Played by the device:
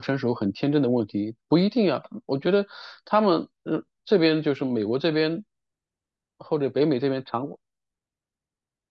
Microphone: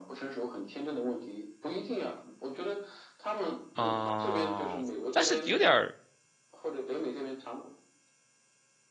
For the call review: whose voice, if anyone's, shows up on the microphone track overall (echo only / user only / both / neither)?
both